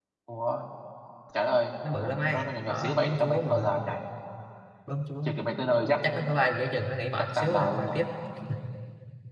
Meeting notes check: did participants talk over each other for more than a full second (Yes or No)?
Yes